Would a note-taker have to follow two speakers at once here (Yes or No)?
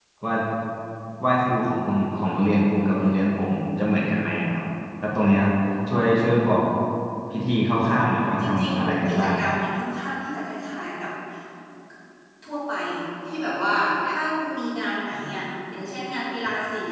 Yes